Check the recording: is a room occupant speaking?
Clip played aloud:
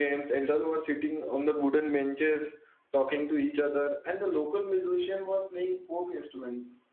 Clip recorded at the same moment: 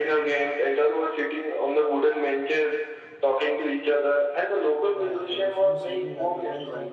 Yes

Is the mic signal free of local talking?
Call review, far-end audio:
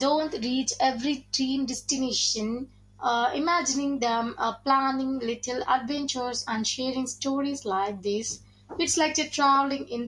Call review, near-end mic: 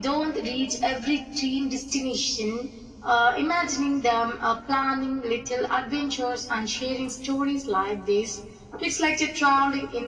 Yes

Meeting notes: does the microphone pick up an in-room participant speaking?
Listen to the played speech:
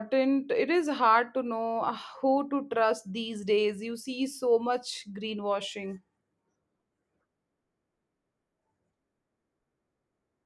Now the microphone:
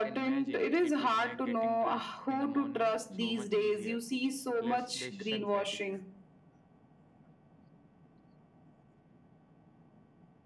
Yes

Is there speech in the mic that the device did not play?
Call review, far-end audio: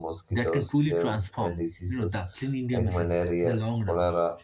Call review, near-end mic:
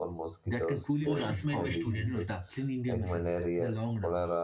Yes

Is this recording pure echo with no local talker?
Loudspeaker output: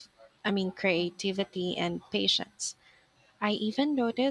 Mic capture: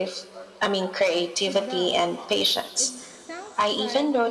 No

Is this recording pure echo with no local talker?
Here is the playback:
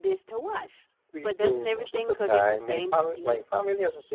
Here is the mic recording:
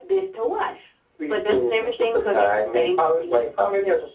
Yes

